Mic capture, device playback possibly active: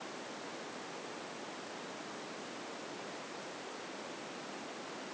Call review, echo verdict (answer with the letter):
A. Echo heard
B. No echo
B